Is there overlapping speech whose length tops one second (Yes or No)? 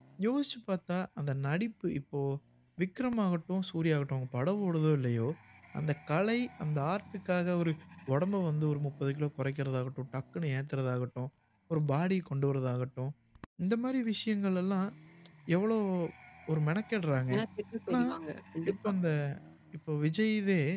No